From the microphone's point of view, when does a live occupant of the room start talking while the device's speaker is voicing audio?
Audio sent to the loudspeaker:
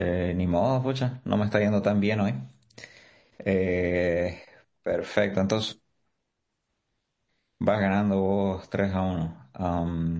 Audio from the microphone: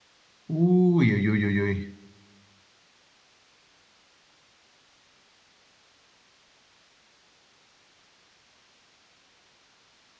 0.5 s

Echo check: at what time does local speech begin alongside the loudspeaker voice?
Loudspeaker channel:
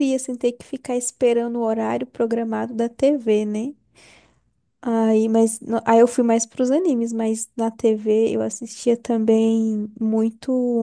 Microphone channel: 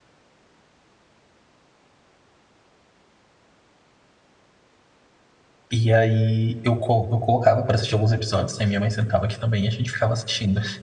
5.7 s

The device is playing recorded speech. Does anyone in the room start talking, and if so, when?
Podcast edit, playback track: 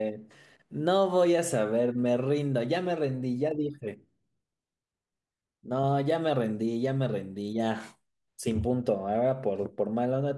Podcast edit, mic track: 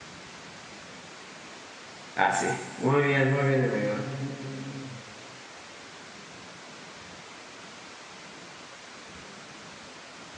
2.1 s

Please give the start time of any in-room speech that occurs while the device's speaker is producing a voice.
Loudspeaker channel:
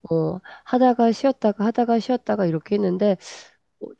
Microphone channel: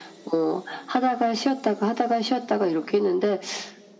none

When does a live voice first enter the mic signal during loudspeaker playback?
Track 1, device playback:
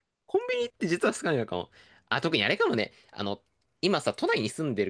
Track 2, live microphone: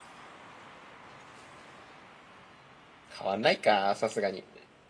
3.1 s

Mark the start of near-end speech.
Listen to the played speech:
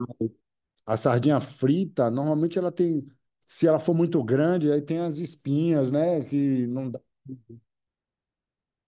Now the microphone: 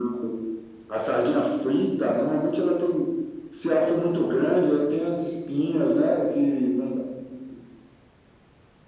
none

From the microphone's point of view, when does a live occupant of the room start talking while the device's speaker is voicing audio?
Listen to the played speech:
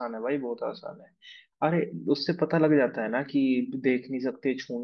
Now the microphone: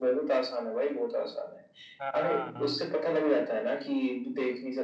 2.0 s

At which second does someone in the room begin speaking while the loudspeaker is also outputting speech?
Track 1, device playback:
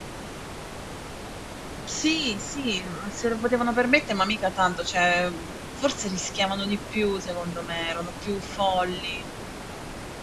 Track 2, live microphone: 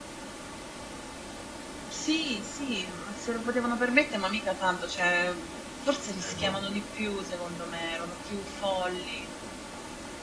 6.2 s

